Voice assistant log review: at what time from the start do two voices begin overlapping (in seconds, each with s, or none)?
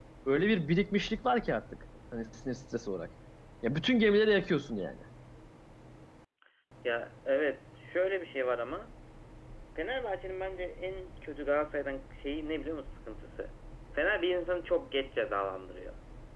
none